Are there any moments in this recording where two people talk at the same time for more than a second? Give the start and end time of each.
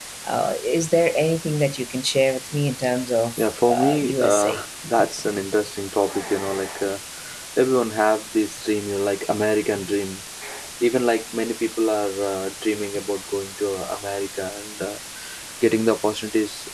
3.4-4.6

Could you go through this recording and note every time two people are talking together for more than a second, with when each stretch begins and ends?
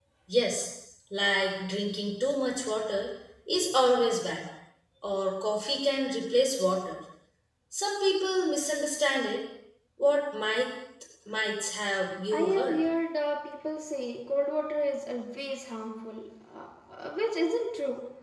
none

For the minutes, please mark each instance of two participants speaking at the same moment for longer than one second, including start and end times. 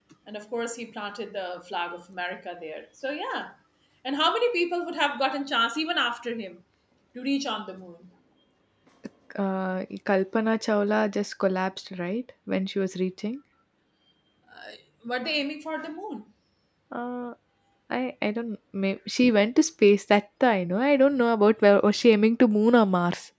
none

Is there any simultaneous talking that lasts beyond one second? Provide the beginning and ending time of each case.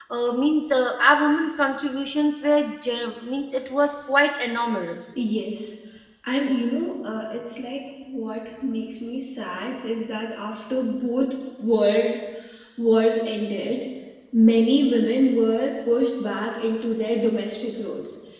none

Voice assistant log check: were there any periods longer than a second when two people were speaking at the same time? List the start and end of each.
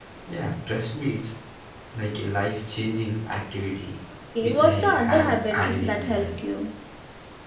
4.4-6.3

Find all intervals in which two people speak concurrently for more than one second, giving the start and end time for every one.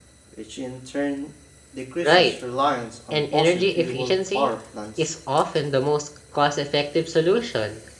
3.1-4.5

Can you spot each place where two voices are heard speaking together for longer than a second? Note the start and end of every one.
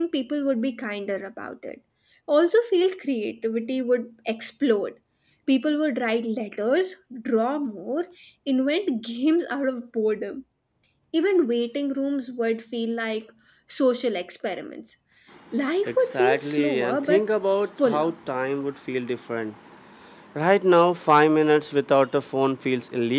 15.9-17.2

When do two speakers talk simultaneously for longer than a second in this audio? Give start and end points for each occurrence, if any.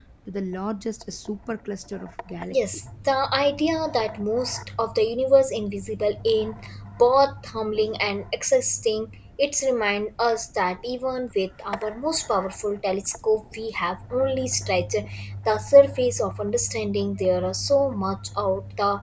none

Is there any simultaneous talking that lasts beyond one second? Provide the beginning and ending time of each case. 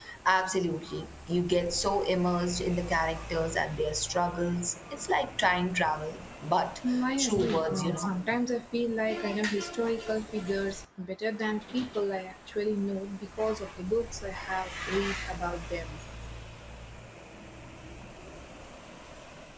6.9-8.1

